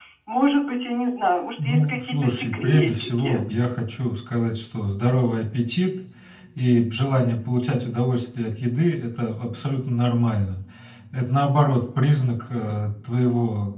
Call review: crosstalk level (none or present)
present